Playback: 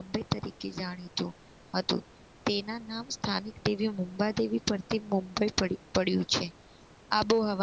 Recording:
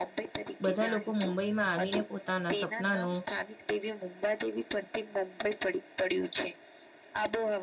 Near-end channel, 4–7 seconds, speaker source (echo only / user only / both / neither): echo only